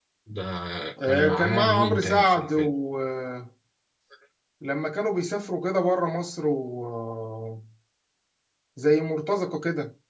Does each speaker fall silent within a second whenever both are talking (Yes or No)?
No